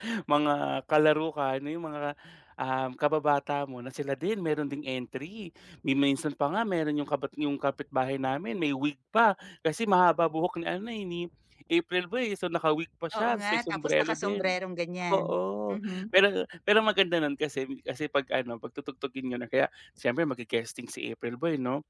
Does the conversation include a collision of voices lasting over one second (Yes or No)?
Yes